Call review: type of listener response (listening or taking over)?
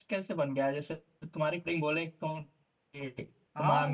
listening